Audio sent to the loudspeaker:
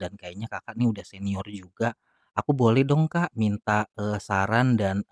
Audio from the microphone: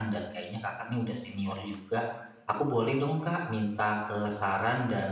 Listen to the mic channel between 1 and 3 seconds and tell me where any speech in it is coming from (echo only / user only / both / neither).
echo only